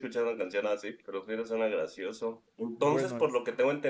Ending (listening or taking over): listening